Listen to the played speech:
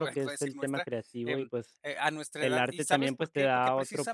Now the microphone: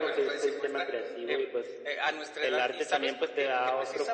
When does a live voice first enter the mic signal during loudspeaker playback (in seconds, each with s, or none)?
none